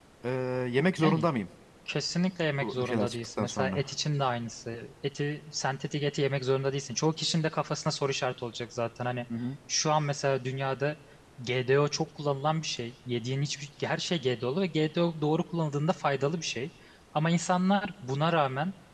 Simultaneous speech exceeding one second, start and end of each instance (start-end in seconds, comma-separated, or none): 2.6-3.8